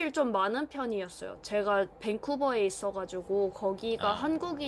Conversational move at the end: listening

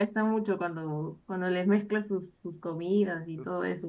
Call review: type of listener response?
taking over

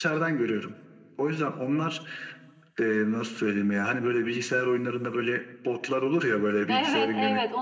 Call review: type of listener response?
taking over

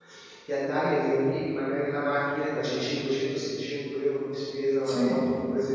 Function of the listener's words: listening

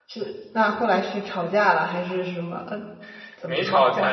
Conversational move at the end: taking over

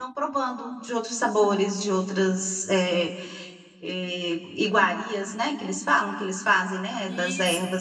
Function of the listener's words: taking over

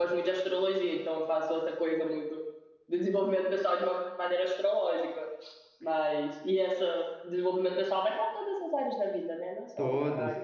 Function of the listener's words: listening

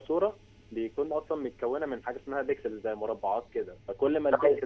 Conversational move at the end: listening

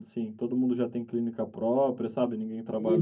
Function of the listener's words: taking over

